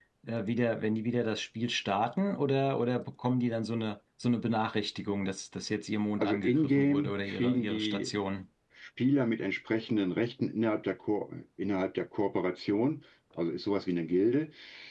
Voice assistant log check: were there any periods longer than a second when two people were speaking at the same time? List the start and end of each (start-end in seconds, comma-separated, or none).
6.2-8.1